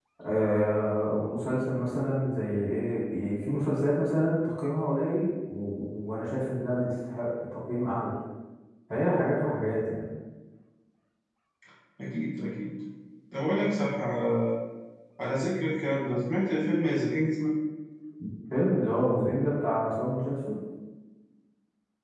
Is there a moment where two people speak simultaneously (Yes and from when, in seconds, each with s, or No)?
No